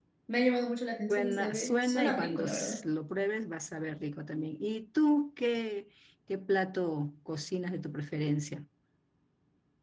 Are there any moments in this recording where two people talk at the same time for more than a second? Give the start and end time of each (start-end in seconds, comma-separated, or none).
1.1-2.8